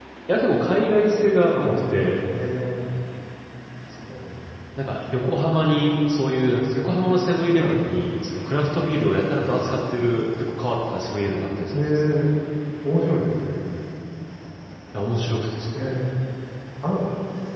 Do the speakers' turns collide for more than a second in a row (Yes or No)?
No